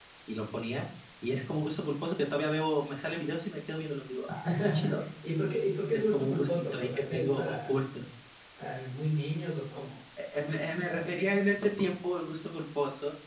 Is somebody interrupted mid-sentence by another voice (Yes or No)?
Yes